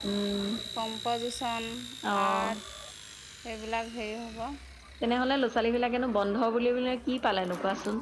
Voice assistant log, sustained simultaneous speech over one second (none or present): none